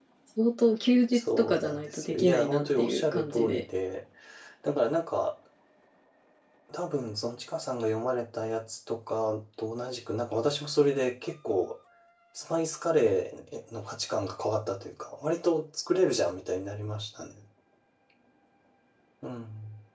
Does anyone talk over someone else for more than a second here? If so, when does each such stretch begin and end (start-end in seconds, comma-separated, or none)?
1.1-3.6